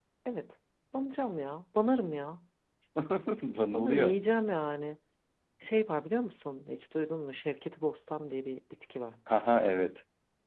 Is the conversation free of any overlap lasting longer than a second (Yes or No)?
Yes